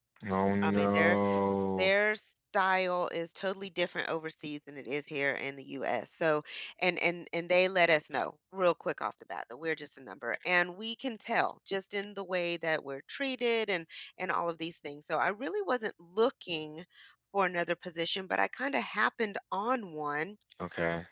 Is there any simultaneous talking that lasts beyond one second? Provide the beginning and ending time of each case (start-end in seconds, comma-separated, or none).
none